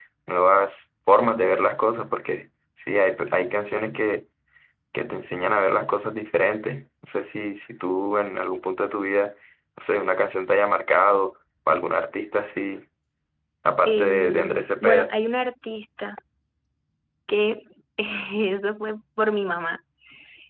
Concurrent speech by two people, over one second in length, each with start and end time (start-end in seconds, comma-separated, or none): 13.8-15.1